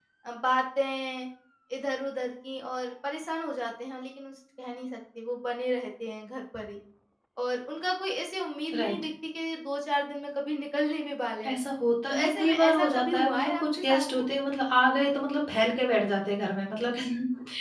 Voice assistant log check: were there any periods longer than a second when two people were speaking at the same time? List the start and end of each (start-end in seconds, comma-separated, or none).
12.1-14.2